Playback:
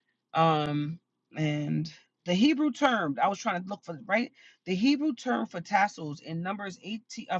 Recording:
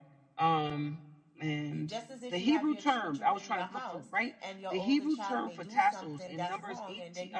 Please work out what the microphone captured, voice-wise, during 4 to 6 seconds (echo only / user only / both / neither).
both